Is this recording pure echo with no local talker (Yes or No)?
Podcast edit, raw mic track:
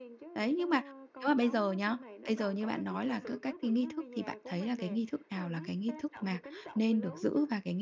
No